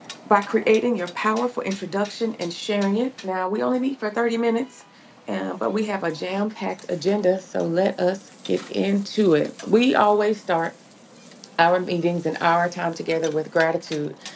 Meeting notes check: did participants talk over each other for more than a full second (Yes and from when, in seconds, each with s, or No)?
No